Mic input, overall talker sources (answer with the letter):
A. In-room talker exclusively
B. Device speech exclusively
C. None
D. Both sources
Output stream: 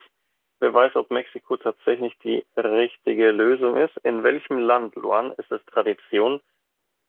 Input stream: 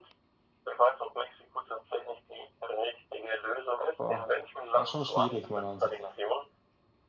D